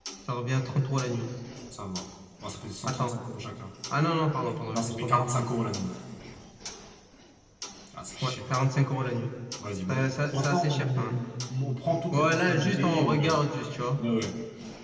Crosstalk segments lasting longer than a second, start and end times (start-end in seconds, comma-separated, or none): 9.9-11.2, 12.1-13.5